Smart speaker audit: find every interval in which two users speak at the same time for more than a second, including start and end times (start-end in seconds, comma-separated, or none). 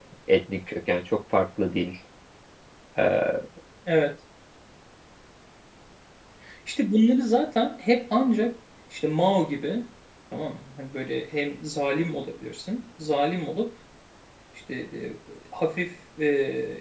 none